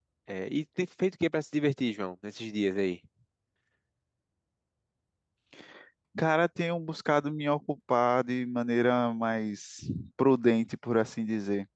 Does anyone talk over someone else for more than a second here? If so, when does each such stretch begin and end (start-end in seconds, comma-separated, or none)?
none